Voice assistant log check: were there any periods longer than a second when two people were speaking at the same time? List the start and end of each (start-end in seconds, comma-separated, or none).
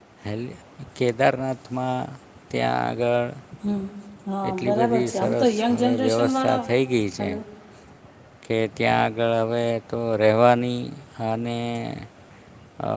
4.5-6.6